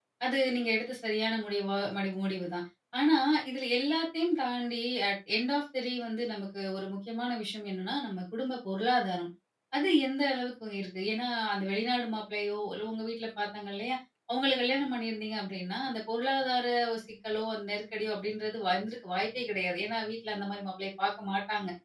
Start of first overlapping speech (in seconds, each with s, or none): none